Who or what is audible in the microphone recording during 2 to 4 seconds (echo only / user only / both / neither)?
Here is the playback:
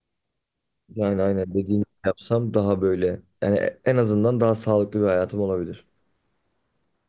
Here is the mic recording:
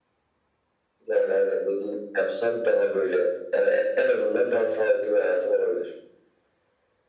echo only